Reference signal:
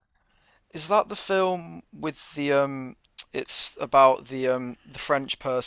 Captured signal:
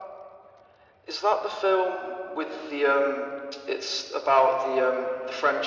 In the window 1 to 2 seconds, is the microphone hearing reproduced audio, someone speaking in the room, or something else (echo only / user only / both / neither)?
echo only